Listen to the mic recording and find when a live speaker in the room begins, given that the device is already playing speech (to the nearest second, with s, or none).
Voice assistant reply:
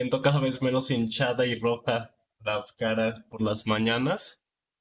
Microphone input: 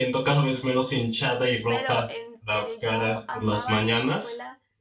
2 s